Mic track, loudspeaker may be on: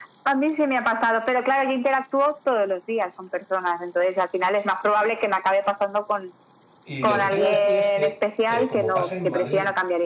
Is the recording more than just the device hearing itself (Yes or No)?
Yes